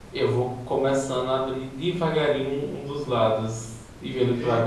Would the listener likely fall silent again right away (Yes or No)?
No